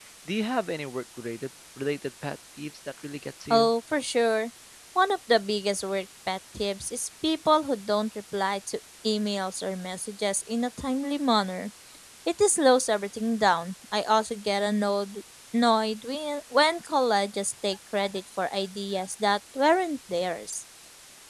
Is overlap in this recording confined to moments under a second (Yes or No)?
Yes